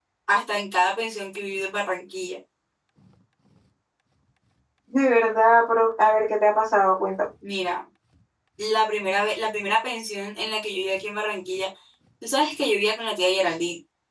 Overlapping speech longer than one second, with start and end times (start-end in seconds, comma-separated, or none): none